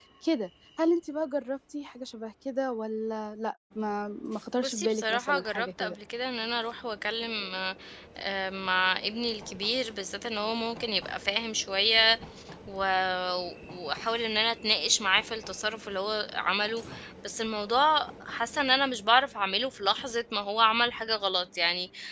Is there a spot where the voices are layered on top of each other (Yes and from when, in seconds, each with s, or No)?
Yes, from 4.6 s